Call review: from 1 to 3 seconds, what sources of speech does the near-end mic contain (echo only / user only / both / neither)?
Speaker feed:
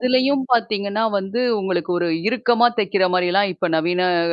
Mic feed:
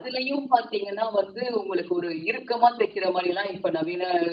echo only